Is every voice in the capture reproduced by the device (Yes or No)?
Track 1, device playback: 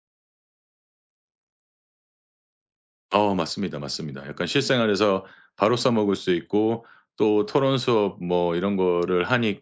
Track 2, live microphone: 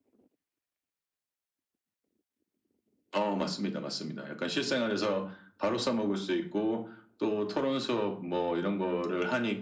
Yes